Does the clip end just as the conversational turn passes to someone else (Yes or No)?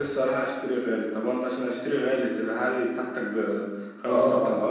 Yes